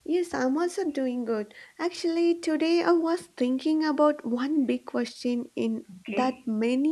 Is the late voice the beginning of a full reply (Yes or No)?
No